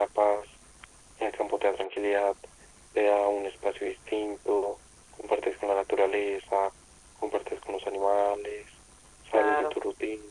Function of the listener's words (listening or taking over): listening